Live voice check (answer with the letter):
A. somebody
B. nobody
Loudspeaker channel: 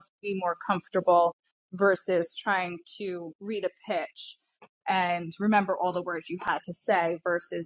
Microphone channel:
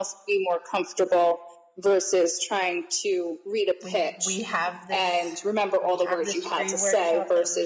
A